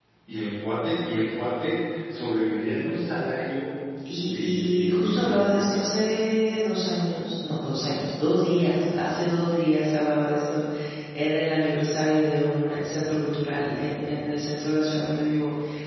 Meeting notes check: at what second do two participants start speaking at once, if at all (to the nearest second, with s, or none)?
4 s